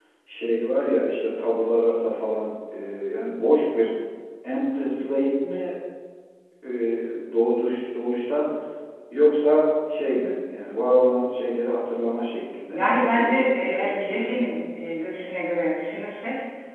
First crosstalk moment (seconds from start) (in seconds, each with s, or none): 12.7 s